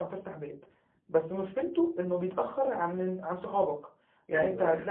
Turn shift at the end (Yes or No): No